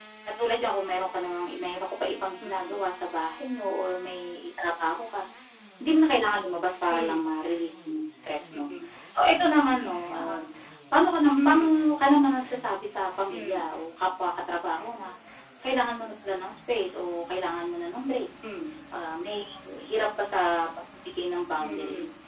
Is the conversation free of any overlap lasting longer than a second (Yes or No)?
Yes